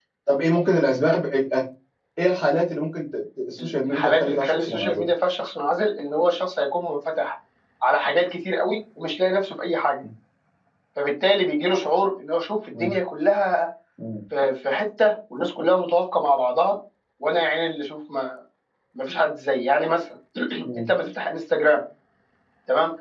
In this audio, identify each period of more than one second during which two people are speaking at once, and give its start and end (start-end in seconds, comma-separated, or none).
3.6-5.1